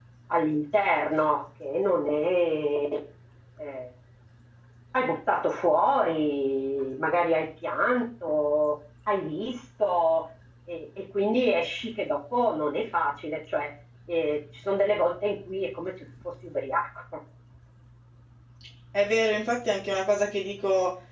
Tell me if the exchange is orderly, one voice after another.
Yes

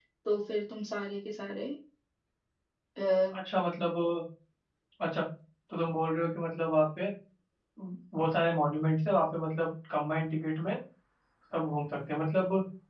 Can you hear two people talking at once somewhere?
No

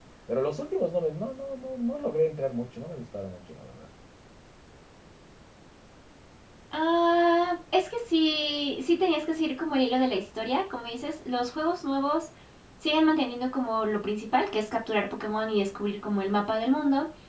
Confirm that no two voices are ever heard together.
Yes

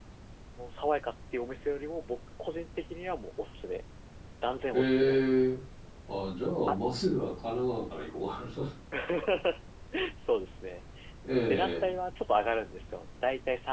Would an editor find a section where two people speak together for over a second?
No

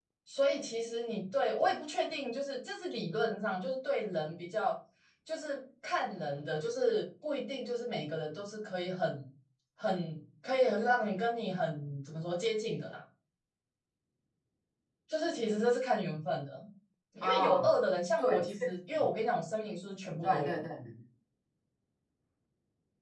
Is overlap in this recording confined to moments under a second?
Yes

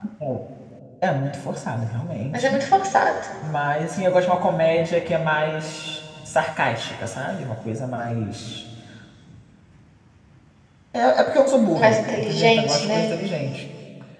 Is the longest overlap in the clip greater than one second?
Yes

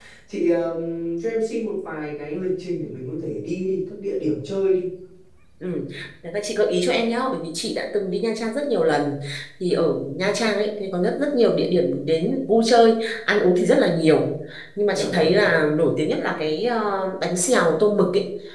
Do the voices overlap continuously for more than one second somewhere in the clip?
No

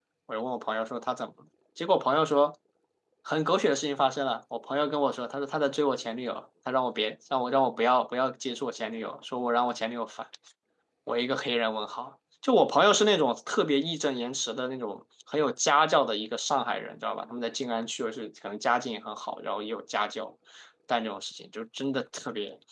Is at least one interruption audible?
No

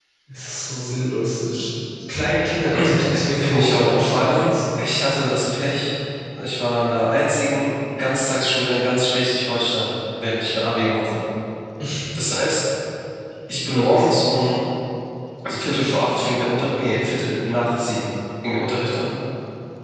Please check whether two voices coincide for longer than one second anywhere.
Yes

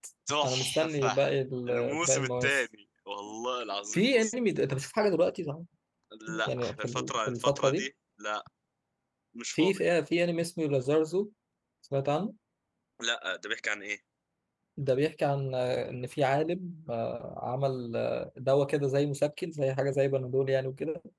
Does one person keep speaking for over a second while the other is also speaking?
Yes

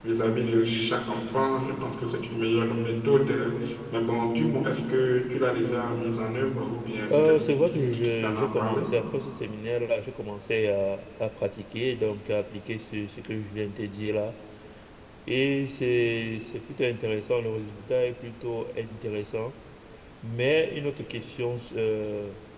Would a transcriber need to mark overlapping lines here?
Yes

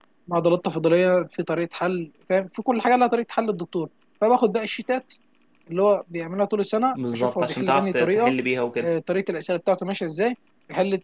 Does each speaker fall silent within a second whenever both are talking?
No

